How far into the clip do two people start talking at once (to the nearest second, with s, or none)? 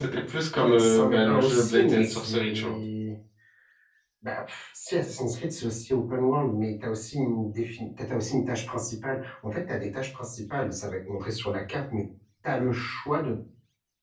1 s